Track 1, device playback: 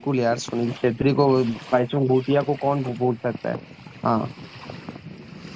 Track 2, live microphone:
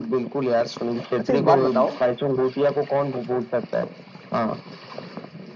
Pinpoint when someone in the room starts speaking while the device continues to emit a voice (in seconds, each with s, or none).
1.2 s